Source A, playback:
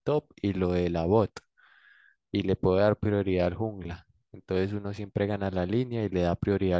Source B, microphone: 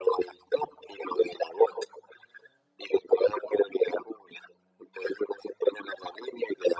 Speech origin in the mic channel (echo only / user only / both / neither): echo only